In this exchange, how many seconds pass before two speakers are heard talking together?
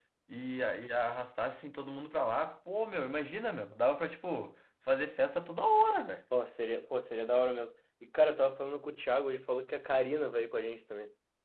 none

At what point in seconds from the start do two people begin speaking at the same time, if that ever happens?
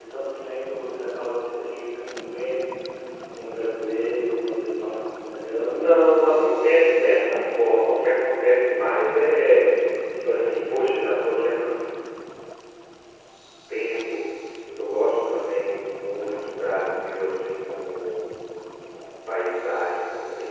6 s

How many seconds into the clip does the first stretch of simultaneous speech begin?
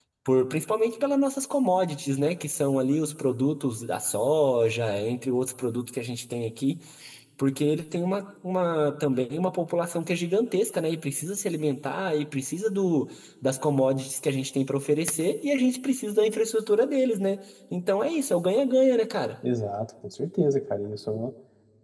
none

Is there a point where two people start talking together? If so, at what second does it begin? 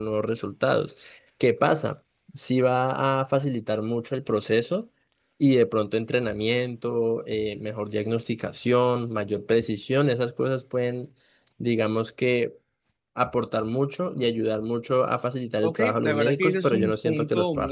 16 s

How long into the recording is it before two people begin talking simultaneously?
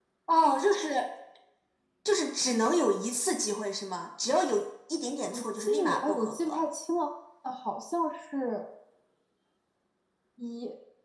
5 s

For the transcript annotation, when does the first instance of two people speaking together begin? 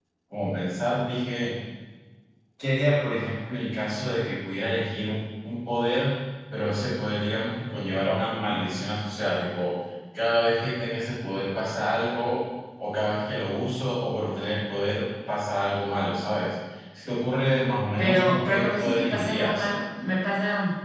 18 s

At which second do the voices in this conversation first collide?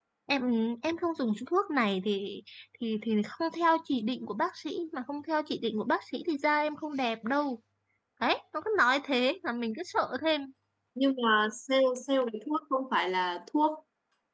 none

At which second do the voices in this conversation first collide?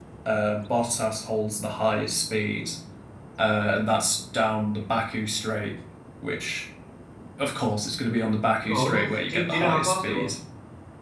9 s

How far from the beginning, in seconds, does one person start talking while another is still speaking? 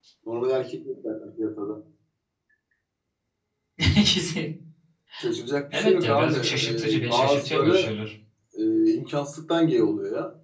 6 s

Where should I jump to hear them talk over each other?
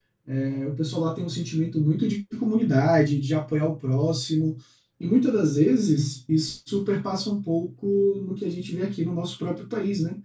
none

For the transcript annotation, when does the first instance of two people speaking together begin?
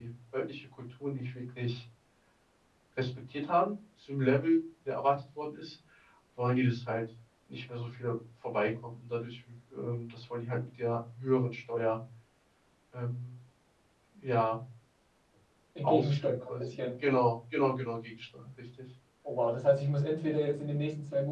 16 s

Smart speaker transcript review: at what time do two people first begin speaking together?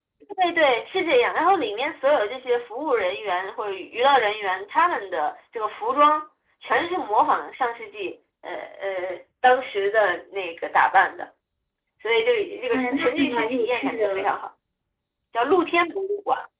13 s

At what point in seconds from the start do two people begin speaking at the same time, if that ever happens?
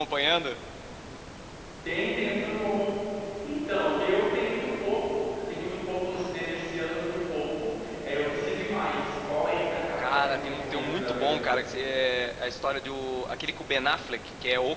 10 s

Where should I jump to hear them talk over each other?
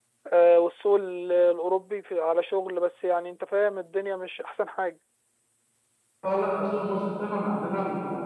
none

